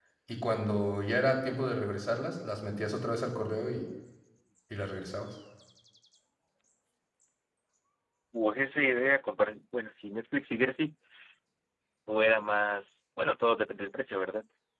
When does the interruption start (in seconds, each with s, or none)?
none